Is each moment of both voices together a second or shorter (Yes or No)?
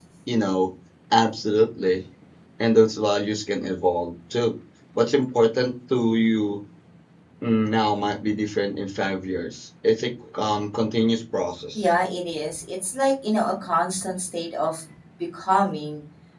Yes